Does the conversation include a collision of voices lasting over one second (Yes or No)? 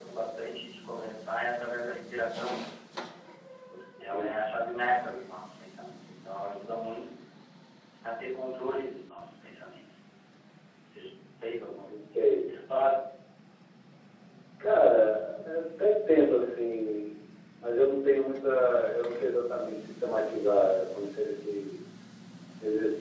No